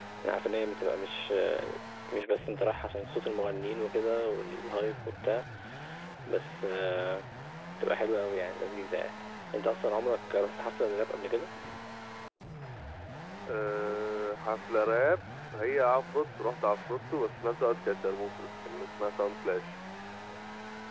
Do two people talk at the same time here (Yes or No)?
No